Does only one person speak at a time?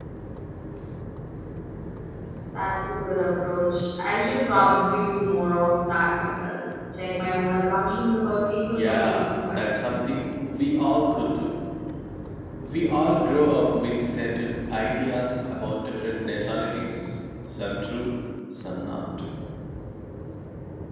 No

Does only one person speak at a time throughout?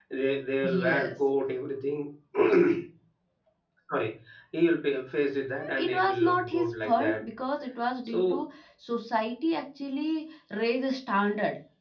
No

